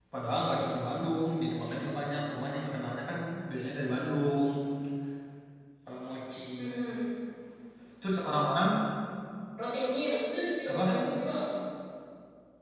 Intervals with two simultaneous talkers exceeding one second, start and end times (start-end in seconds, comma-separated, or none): none